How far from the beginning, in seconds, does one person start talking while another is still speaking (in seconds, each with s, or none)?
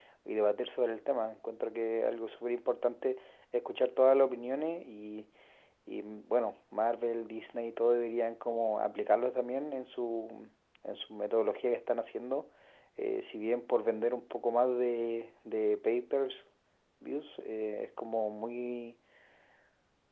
none